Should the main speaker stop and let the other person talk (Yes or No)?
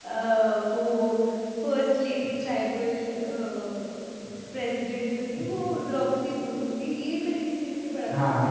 No